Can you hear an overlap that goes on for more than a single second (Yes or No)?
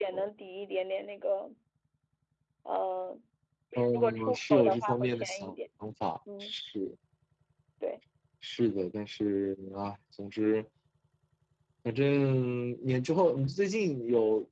Yes